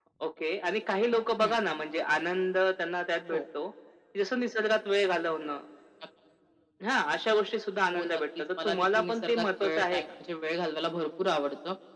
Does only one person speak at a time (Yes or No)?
No